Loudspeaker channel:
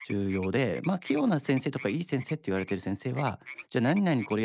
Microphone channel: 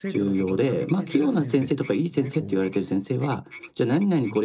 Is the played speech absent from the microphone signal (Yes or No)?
No